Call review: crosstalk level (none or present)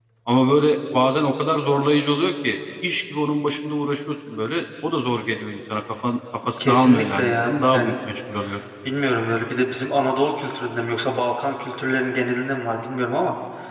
present